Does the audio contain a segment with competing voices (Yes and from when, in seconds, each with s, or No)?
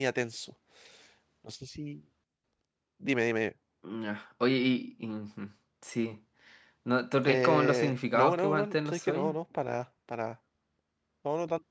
Yes, from 7.3 s